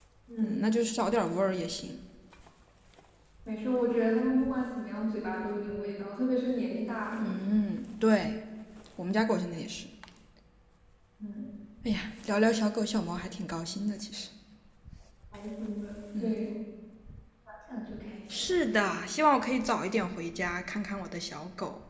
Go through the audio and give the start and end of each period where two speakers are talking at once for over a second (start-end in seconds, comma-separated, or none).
none